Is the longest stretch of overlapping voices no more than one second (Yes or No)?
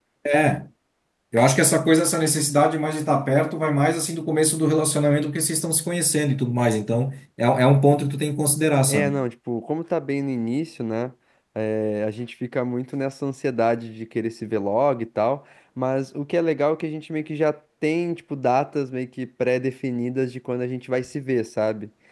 Yes